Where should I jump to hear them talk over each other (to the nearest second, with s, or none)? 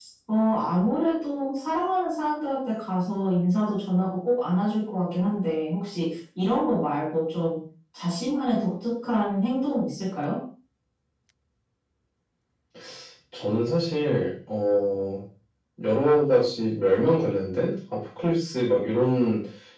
none